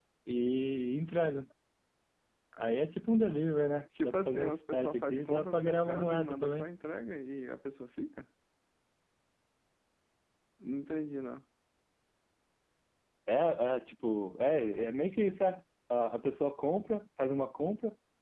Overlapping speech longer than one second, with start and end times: 4.0-6.7

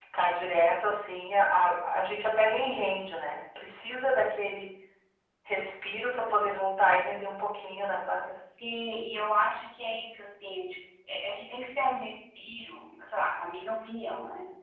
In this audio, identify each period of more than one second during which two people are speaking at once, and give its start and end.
none

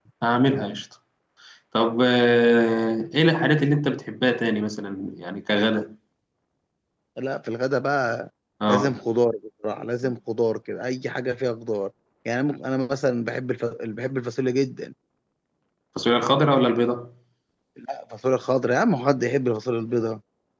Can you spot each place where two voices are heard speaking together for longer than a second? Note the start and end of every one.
none

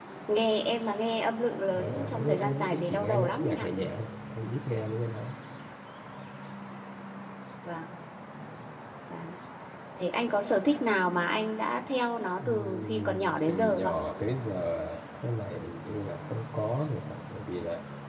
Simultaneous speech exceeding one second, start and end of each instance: 1.7-3.7, 12.4-13.9

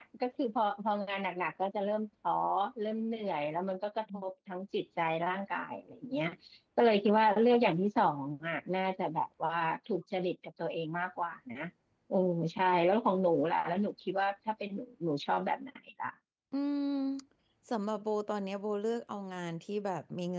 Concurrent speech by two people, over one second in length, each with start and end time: none

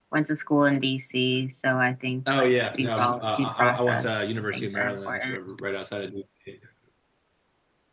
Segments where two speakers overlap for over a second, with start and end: 2.3-5.4

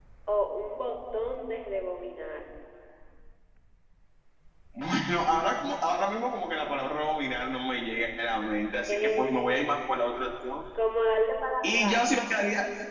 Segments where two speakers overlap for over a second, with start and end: none

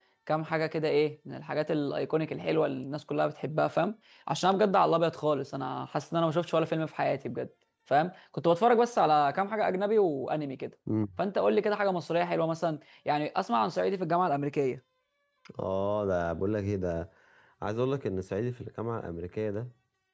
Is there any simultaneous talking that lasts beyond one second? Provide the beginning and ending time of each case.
none

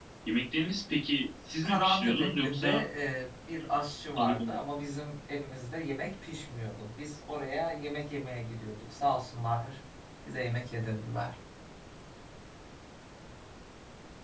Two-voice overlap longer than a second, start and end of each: 1.6-2.8

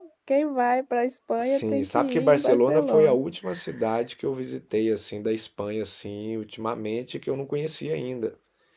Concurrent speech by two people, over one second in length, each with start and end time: 1.4-3.2

